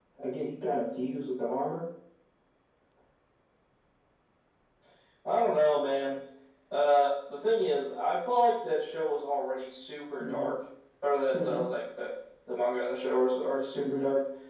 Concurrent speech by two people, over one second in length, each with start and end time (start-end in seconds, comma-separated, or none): none